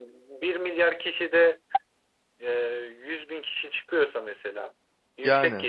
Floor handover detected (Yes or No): No